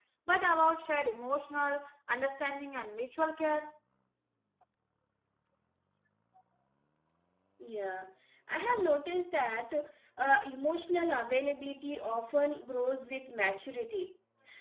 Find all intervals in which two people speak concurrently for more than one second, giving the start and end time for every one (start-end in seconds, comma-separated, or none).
none